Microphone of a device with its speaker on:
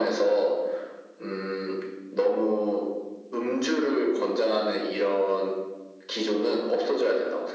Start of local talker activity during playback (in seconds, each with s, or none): none